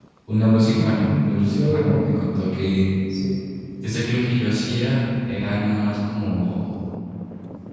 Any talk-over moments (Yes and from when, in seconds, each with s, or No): Yes, from 0.7 s